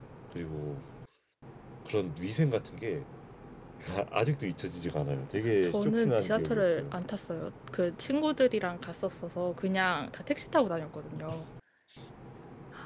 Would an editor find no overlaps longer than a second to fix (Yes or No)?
No